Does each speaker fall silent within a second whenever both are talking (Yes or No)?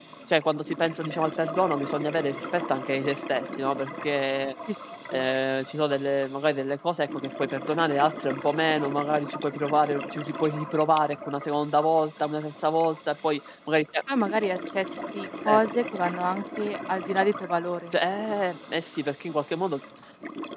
Yes